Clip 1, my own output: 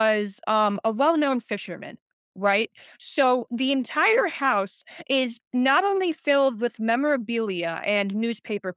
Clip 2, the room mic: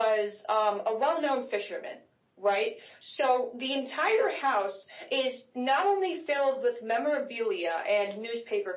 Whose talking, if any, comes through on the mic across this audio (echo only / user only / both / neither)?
echo only